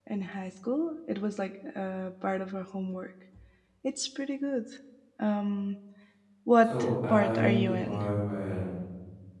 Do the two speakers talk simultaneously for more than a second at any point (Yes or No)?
Yes